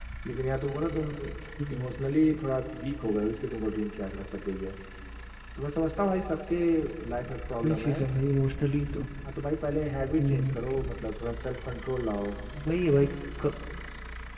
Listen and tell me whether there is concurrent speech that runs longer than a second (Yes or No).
No